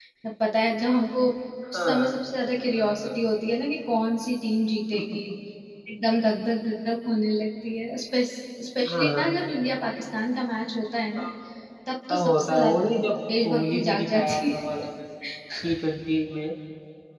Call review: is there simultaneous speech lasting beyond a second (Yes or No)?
Yes